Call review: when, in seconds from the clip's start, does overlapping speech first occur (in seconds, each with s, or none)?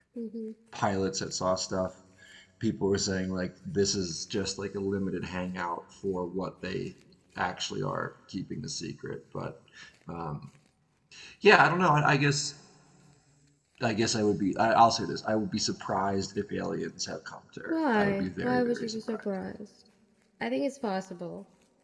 17.7 s